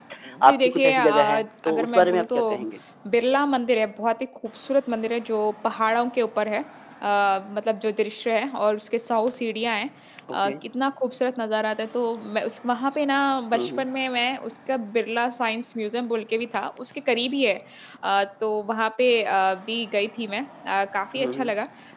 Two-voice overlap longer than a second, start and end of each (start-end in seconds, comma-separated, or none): 0.5-2.4